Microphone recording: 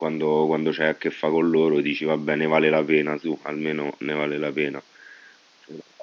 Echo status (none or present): none